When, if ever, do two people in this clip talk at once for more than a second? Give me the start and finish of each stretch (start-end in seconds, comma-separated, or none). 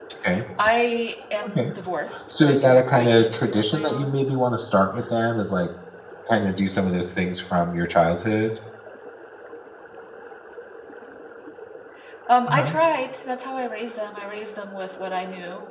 2.4-4.1